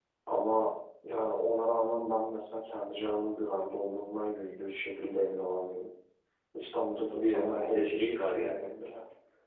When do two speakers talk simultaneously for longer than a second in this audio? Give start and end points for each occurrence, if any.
7.1-8.7

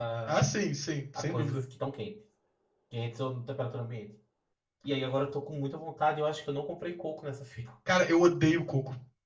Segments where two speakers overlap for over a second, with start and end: none

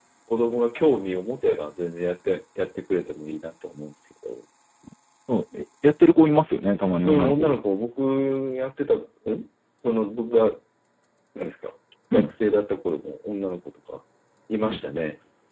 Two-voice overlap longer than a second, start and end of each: none

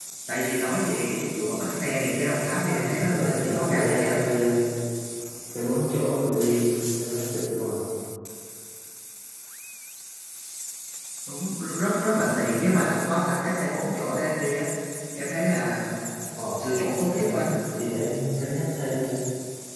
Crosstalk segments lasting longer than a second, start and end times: 2.5-4.2

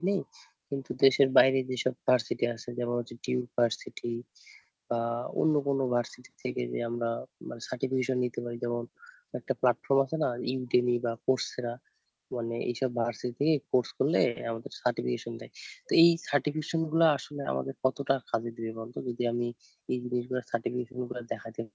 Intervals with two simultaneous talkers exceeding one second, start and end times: none

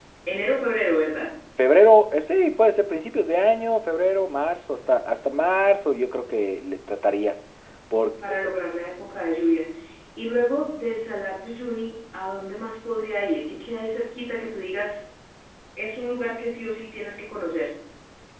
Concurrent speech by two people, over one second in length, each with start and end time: none

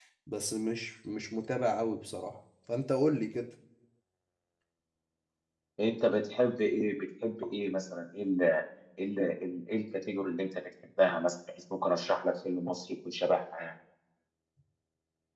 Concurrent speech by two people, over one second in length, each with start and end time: none

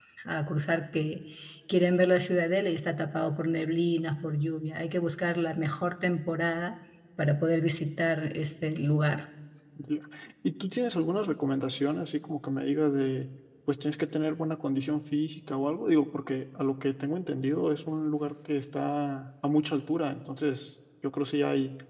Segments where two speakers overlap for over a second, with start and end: none

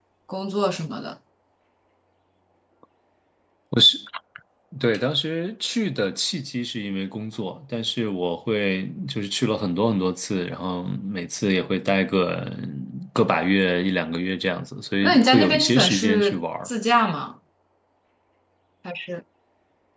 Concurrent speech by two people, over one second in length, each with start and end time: 15.0-16.7

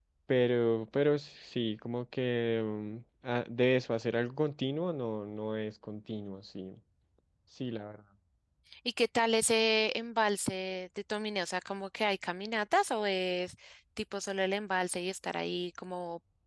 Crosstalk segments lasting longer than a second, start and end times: none

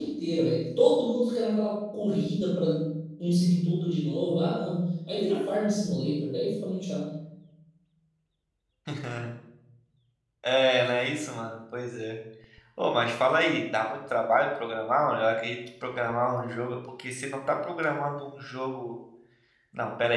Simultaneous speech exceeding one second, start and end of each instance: none

